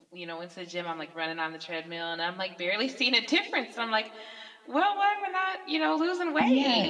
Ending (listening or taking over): taking over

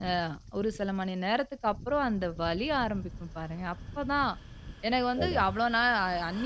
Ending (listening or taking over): listening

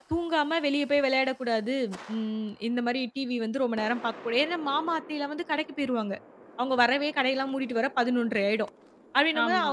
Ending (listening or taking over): listening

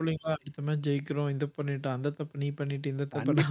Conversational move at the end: taking over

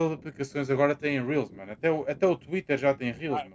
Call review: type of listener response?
taking over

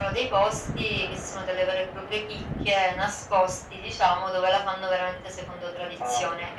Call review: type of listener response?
listening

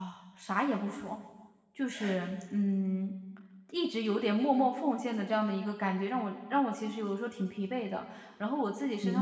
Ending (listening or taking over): listening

